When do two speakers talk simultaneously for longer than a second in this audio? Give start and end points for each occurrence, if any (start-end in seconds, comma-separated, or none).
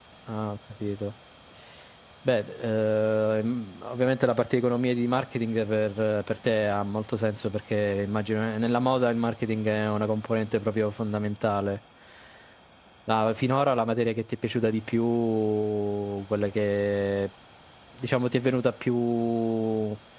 none